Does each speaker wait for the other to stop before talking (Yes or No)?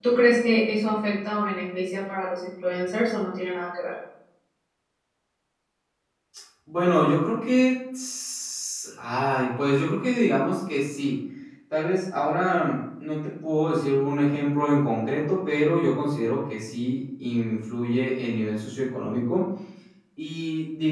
Yes